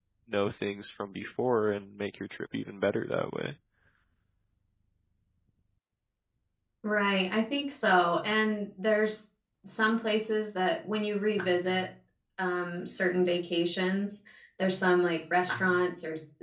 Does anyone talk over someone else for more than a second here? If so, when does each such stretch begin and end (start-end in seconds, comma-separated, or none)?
none